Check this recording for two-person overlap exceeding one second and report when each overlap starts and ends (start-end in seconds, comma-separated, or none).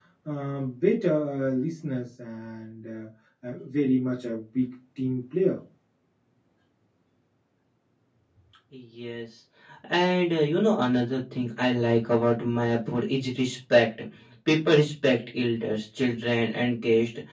none